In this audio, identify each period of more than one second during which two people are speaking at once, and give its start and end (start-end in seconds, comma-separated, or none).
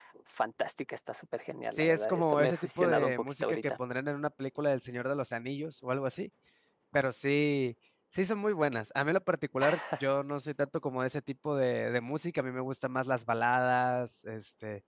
1.7-3.7